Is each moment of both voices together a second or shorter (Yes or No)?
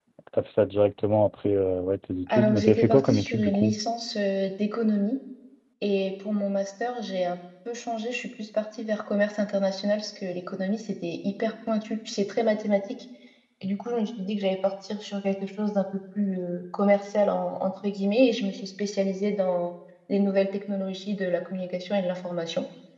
No